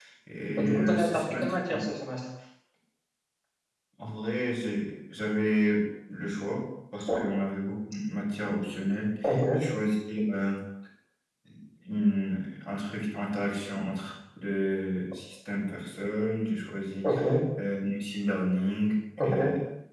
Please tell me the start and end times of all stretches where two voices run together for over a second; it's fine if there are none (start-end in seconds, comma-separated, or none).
0.6-1.8